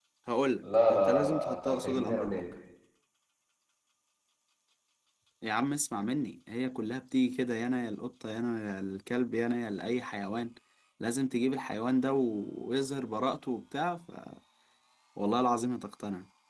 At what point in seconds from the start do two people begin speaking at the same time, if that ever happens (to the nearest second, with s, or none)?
1 s